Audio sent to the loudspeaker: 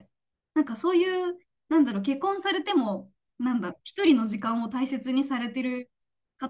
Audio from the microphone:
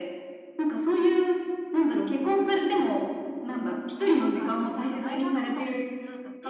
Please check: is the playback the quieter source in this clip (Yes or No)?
No